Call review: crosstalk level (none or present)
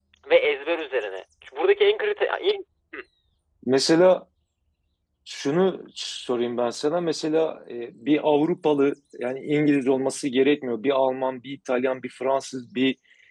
none